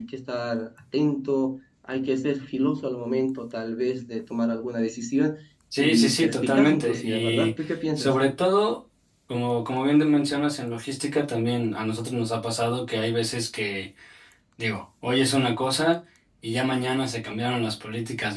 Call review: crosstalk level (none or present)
present